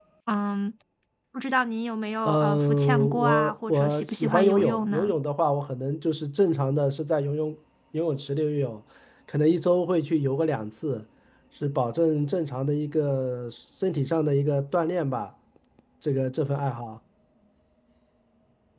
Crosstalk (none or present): present